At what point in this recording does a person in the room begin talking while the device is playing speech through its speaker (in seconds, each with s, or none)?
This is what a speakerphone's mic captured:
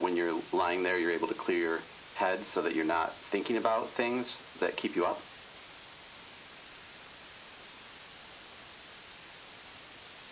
none